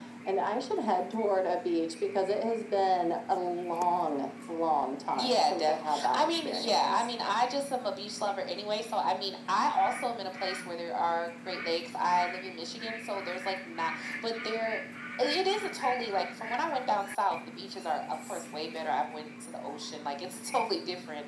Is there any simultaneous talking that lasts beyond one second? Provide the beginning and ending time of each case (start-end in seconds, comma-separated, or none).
5.2-7.1